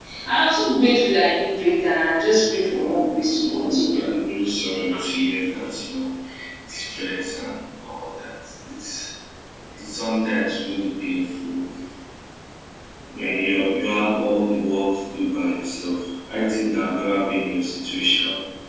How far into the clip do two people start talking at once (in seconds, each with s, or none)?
2.7 s